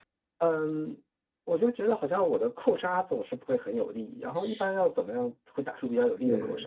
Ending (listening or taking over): taking over